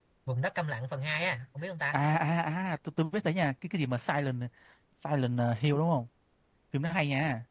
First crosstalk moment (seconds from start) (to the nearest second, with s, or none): none